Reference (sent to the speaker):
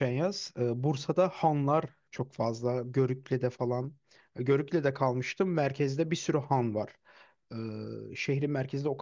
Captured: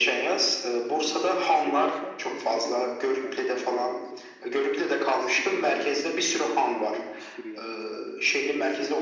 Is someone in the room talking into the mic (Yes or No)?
Yes